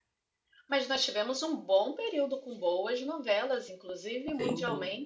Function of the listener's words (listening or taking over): listening